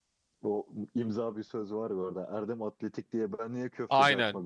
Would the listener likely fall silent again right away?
No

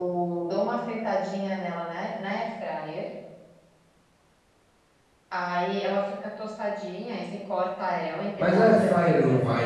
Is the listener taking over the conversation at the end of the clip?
Yes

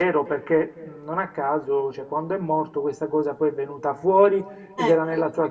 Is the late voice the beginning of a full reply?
No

